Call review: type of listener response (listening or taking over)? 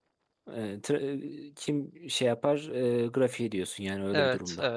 taking over